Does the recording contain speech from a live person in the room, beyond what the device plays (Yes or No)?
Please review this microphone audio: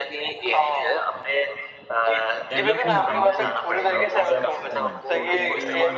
Yes